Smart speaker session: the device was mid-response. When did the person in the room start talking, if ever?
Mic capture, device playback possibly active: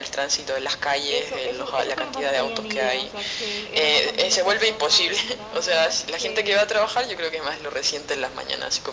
1 s

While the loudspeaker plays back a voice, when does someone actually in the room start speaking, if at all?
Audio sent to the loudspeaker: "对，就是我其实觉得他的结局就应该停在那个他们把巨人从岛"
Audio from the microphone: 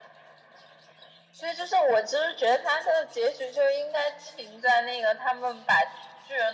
none

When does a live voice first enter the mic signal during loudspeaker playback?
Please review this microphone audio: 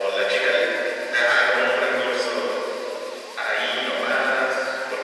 none

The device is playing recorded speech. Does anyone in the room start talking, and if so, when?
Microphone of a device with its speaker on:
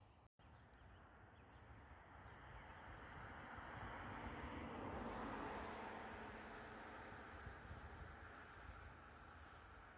none

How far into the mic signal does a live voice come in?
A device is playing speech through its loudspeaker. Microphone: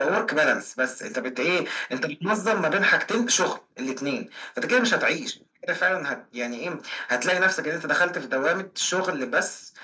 none

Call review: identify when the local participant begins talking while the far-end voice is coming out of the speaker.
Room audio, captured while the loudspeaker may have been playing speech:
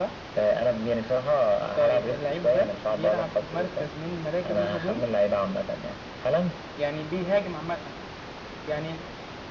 none

